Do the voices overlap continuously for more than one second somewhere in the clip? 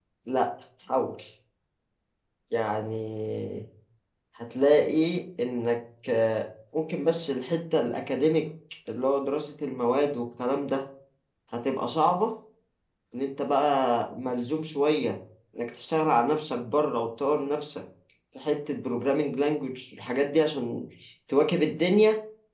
No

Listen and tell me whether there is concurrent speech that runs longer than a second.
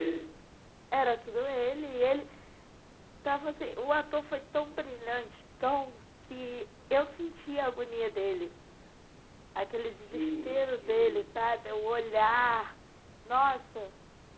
Yes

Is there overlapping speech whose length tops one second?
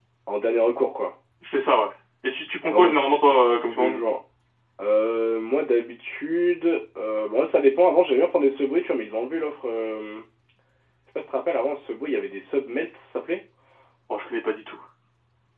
Yes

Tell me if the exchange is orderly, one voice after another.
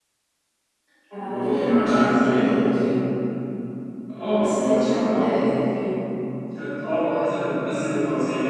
No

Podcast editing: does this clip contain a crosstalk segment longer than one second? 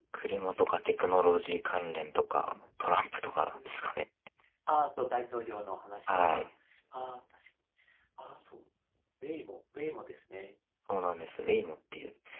No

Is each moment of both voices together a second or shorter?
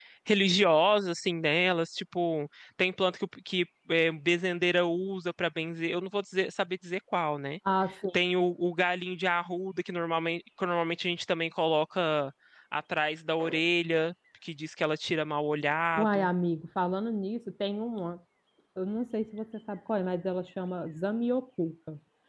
Yes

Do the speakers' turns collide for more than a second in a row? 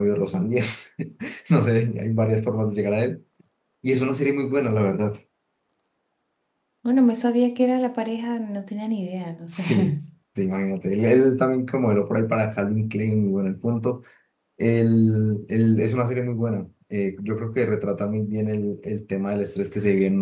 No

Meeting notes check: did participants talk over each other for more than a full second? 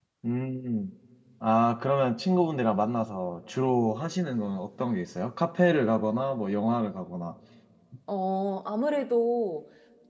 No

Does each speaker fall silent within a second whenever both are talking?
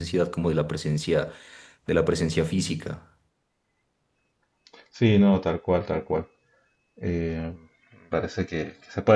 Yes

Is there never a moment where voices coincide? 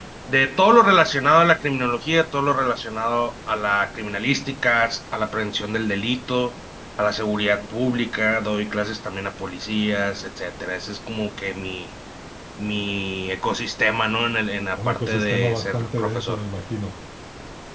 No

